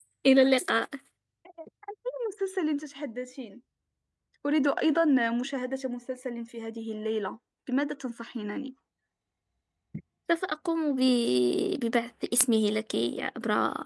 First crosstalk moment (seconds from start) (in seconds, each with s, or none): none